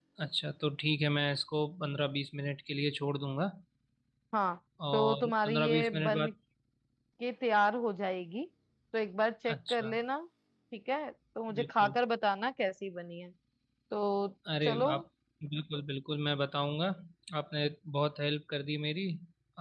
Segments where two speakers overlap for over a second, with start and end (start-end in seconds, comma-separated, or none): 4.9-6.3